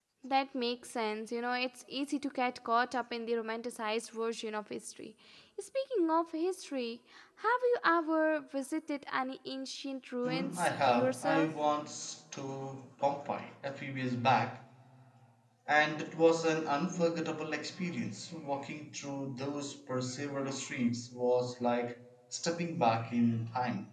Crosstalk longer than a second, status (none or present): present